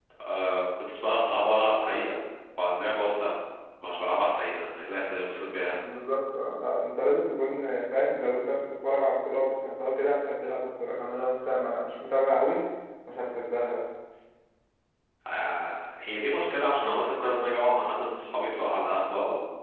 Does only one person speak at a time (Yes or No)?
Yes